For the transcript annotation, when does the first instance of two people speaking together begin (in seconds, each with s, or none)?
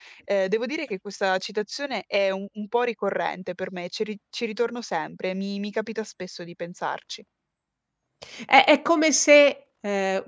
none